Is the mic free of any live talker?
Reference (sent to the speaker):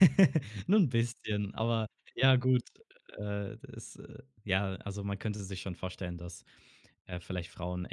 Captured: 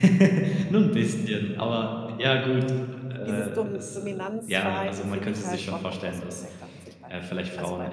No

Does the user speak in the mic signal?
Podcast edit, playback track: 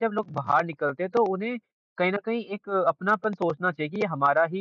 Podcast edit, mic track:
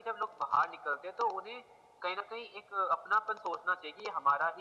No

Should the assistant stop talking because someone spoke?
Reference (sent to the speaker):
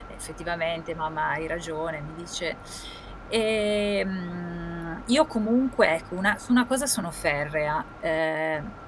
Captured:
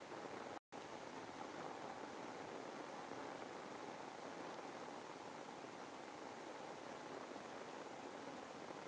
No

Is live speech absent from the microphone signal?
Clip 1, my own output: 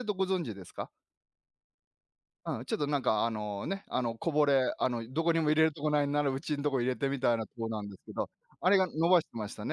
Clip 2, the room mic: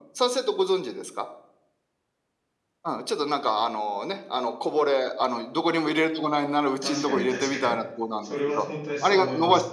No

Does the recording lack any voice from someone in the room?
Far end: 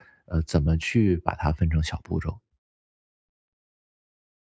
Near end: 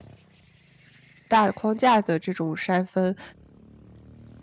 No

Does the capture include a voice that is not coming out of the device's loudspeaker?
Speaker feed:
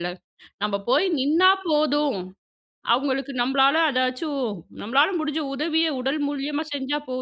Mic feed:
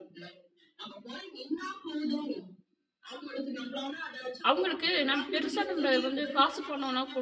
Yes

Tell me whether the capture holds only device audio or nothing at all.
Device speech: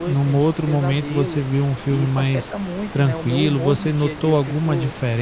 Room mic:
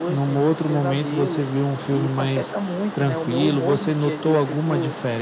Yes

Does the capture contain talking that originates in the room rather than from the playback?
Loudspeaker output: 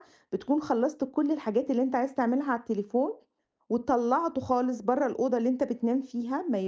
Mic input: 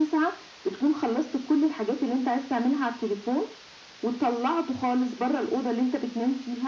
No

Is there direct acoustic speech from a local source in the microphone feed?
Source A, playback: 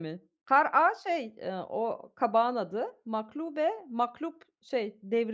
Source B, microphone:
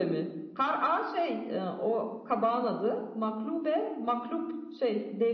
No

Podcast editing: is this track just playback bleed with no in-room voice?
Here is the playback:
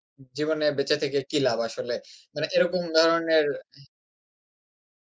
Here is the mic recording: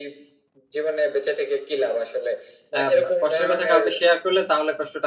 No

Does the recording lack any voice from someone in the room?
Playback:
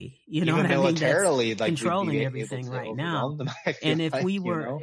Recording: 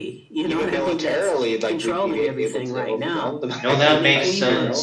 No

